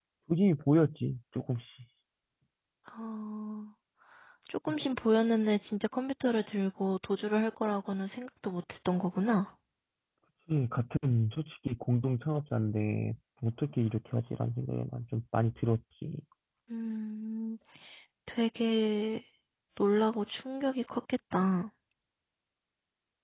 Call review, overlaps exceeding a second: none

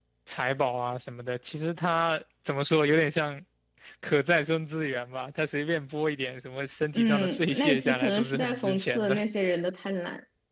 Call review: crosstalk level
present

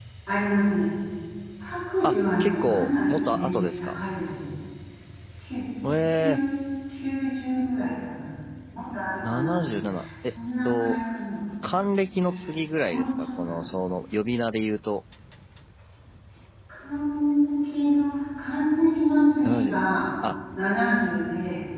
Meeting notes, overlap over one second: present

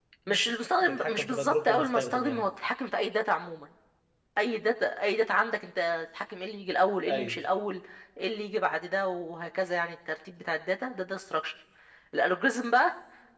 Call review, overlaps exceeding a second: present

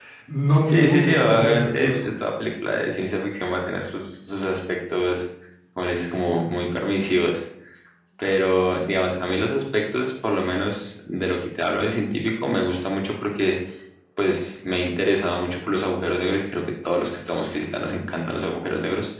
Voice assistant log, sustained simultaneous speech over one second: present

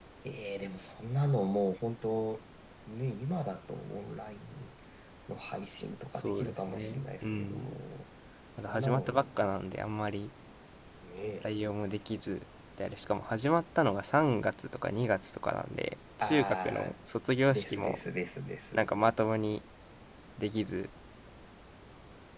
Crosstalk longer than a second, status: present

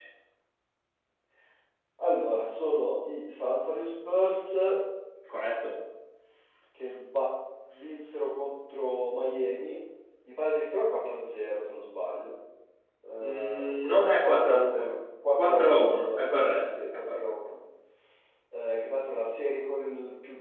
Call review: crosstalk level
present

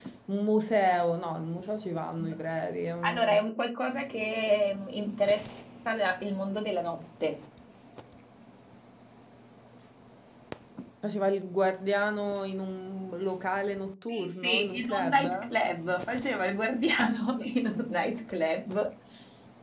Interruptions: present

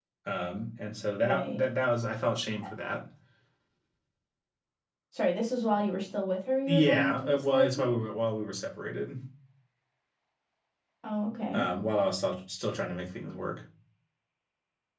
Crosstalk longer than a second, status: present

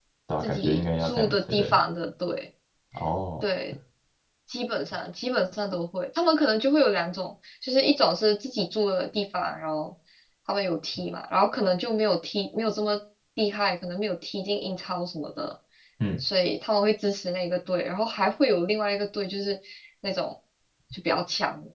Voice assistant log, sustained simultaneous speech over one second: present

